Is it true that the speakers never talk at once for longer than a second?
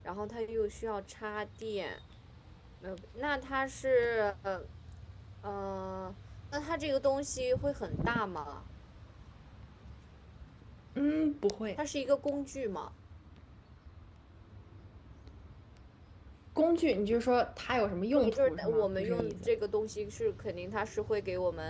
No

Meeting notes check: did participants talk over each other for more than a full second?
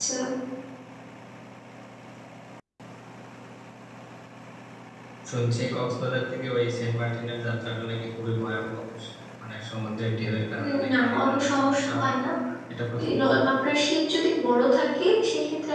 Yes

